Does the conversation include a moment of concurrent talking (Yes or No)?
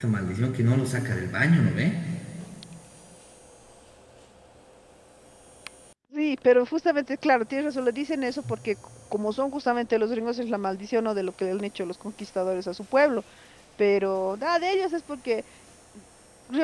No